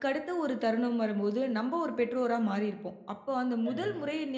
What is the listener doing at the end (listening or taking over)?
listening